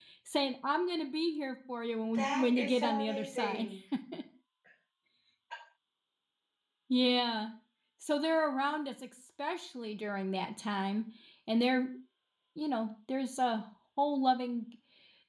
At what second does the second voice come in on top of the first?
2.1 s

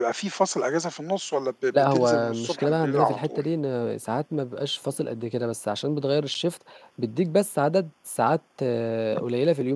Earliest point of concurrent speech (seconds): 1.7 s

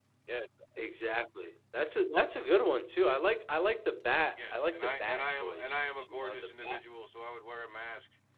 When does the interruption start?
4.4 s

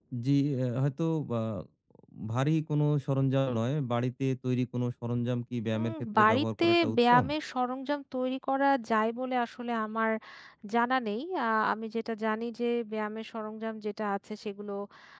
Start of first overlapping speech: 5.7 s

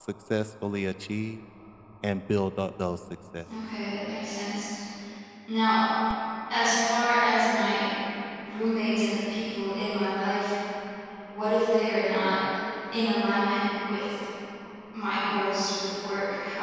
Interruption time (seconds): none

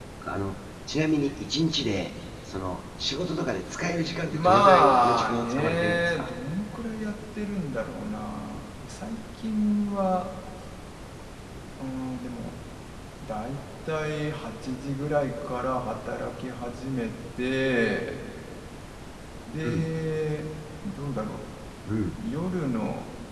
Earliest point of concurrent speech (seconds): 4.3 s

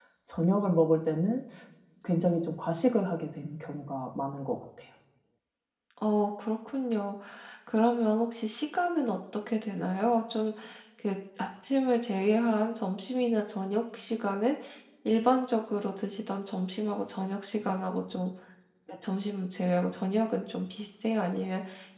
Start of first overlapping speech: none

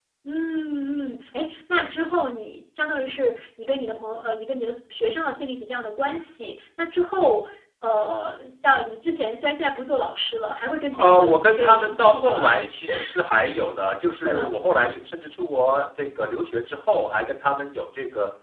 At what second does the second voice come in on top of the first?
10.9 s

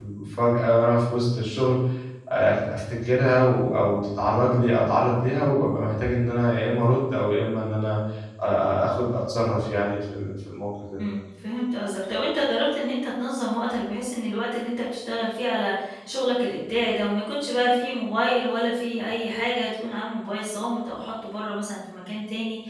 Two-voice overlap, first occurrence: none

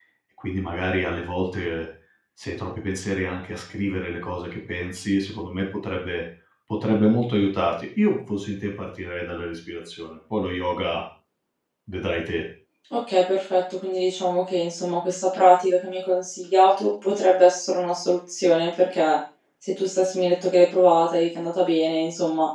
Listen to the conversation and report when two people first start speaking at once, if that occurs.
none

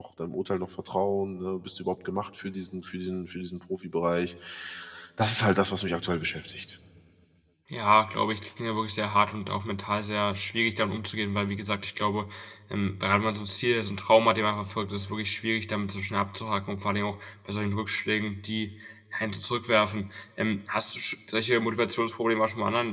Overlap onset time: none

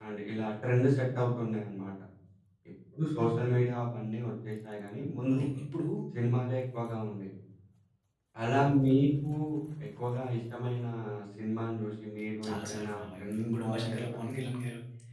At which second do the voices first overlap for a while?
12.4 s

